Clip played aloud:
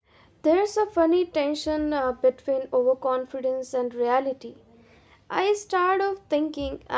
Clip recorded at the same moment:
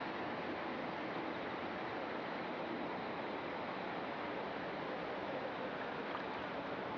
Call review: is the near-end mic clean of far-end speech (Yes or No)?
Yes